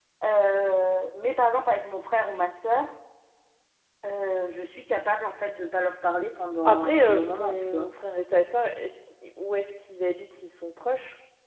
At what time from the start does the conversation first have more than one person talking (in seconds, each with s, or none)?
6.6 s